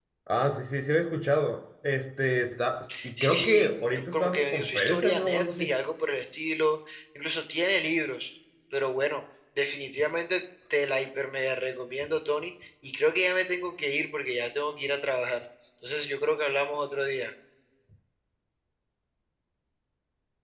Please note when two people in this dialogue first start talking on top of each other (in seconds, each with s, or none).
3.1 s